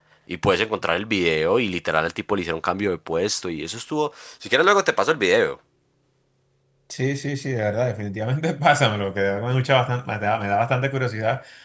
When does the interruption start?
none

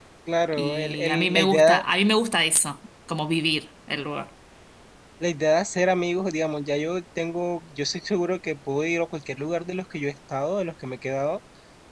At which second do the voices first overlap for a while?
0.5 s

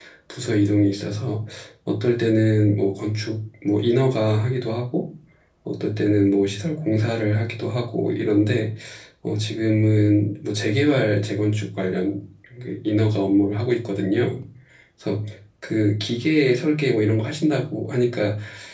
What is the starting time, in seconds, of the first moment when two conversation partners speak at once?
none

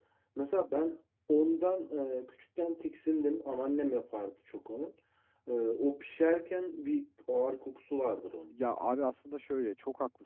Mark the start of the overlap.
none

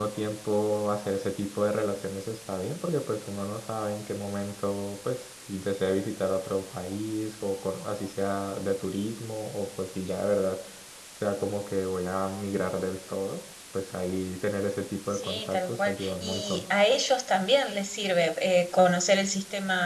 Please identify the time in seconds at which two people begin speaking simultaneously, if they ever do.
15.1 s

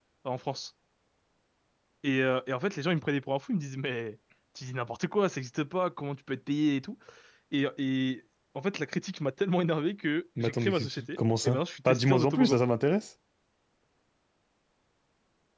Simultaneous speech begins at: 10.4 s

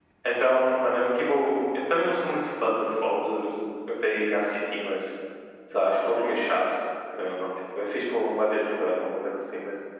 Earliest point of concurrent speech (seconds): none

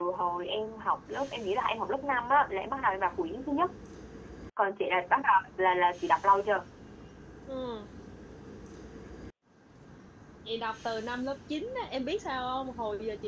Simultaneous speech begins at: none

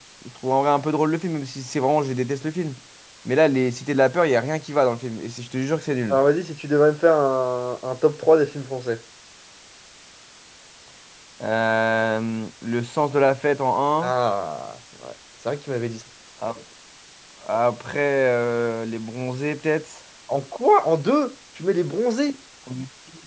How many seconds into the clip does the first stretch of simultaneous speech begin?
none

